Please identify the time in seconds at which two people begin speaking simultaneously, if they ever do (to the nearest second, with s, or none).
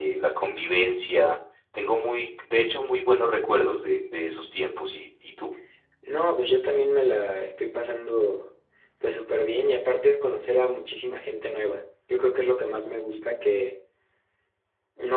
none